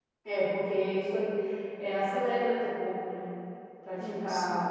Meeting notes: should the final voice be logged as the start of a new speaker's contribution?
No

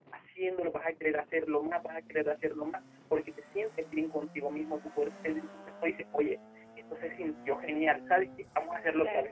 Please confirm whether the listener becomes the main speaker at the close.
No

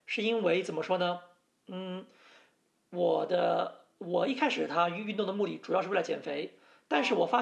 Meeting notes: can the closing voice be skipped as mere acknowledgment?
Yes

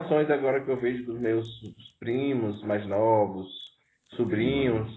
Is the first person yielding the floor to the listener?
No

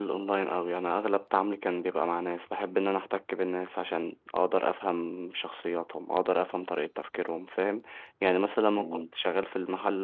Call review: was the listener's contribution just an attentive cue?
Yes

